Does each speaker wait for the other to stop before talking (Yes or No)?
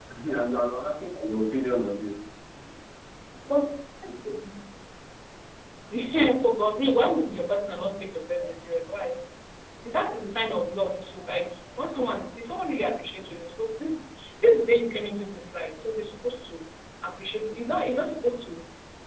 Yes